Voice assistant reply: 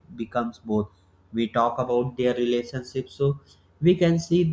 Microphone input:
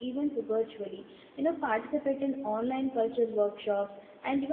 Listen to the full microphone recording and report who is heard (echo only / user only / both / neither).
user only